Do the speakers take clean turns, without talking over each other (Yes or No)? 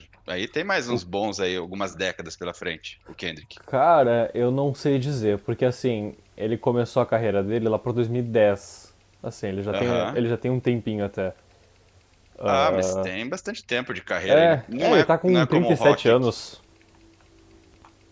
No